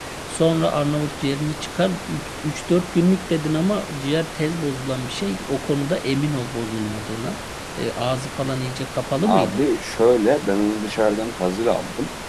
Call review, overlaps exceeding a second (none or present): none